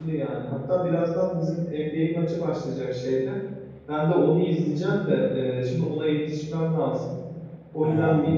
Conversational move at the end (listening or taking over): listening